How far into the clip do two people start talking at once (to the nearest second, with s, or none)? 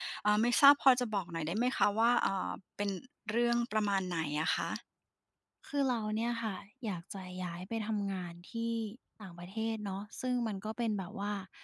none